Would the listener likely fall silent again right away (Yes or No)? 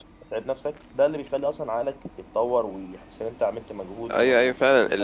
No